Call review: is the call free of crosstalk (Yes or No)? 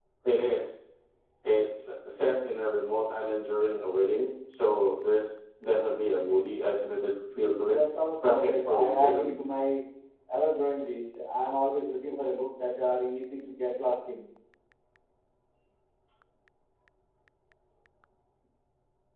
No